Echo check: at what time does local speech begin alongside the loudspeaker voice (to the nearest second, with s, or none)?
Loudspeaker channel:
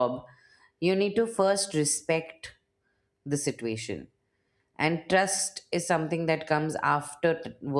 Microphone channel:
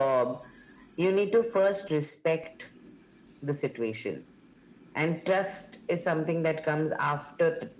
none